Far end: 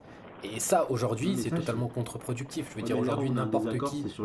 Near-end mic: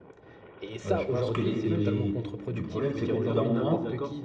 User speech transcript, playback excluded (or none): Euh, je pense que les, les- le problème, c'est qu'au bout d'un moment,